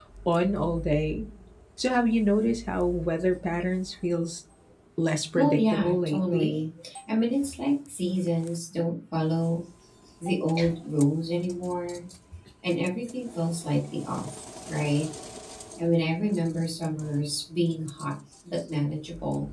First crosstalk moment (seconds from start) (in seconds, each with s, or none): 5.3 s